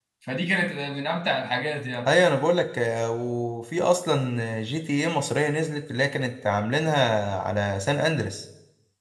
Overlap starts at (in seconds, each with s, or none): none